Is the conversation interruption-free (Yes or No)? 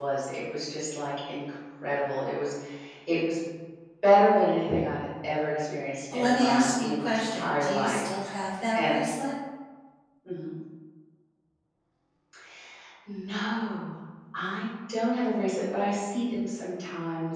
No